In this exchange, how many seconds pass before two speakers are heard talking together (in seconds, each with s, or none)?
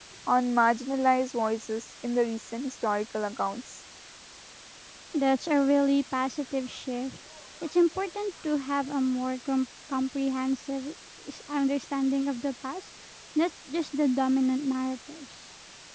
none